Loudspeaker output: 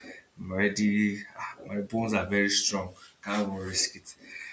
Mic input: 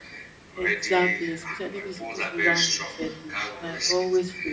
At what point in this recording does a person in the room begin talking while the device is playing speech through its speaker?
0.5 s

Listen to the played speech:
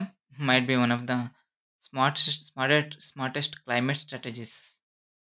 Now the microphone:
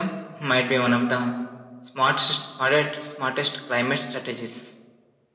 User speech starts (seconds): none

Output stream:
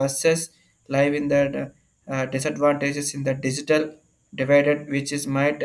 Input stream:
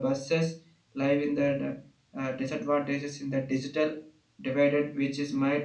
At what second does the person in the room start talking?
none

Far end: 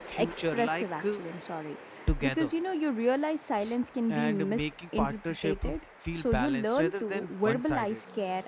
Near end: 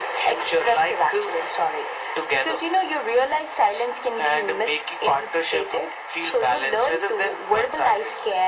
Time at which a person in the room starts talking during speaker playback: none

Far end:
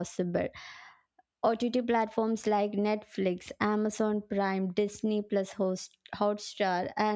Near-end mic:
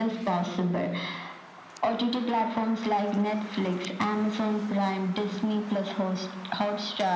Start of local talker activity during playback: none

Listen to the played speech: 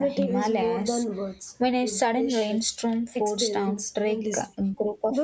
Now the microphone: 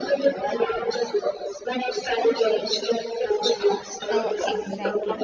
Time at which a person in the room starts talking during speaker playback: 4.1 s

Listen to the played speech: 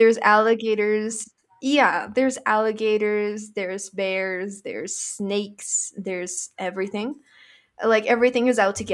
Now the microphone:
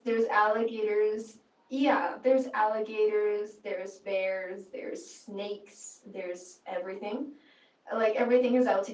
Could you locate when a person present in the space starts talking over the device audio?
none

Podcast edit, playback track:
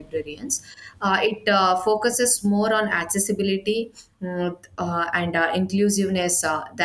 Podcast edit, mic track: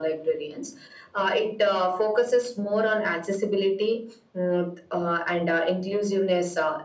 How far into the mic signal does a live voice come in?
none

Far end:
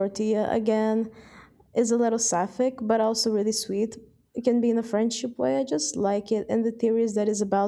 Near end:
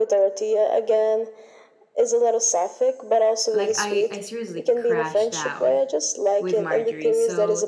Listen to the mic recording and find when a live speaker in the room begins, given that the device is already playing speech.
3.5 s

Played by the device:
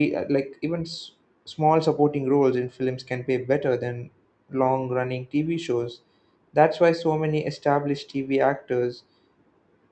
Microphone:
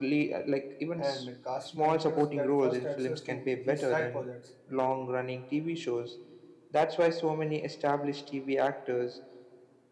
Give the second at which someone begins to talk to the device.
1.0 s

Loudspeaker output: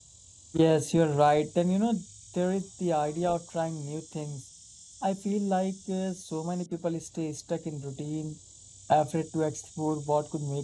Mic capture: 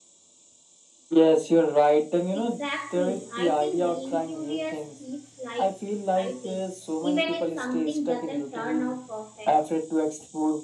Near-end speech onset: 2.3 s

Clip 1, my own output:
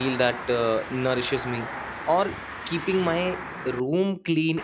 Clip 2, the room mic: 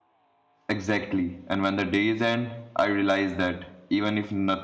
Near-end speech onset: 0.7 s

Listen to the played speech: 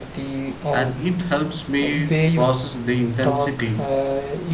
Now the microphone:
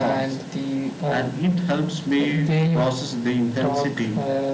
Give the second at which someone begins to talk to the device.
none

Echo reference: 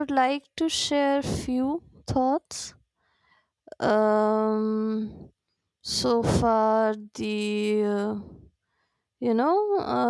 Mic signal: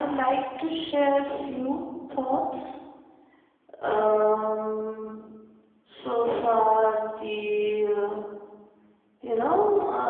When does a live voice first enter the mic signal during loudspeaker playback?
none

